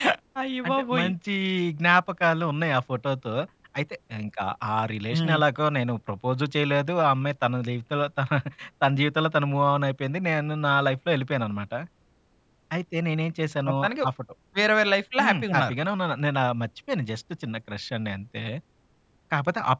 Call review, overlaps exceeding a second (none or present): none